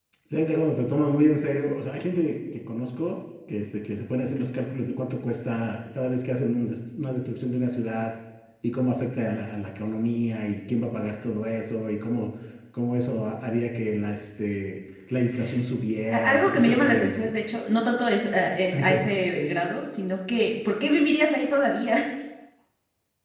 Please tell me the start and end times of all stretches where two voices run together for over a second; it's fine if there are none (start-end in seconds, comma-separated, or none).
16.1-17.3